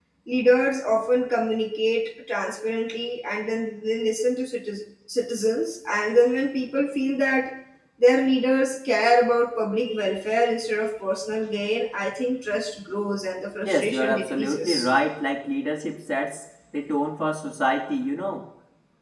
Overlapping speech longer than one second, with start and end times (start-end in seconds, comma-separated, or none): 13.6-14.9